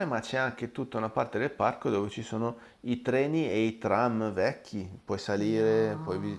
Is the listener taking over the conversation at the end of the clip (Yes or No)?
Yes